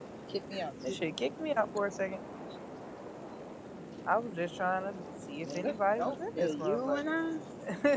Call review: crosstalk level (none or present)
present